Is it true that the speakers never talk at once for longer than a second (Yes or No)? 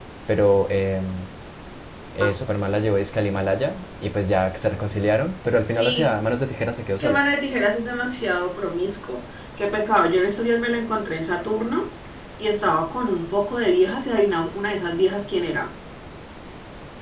Yes